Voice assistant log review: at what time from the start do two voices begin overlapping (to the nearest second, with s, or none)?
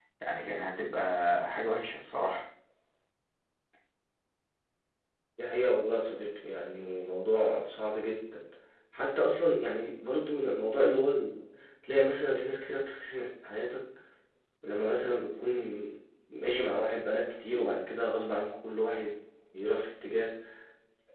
none